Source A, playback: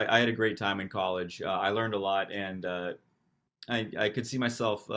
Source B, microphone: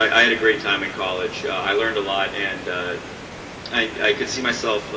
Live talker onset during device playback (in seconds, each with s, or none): none